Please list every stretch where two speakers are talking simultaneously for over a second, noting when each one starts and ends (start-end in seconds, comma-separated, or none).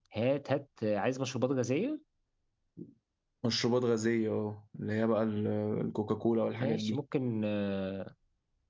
none